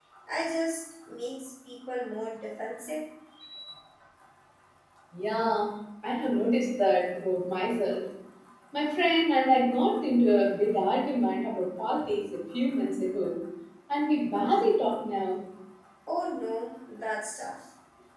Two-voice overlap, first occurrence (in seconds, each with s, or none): none